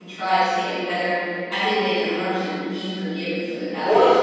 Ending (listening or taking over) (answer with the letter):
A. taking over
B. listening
A